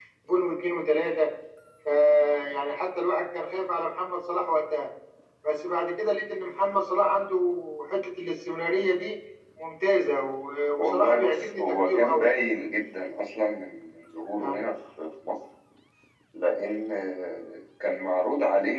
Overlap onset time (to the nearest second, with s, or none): 11 s